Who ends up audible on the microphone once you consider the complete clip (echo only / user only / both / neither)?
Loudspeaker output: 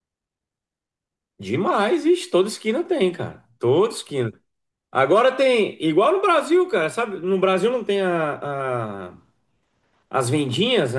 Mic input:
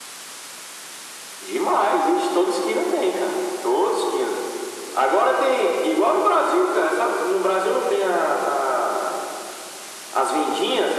echo only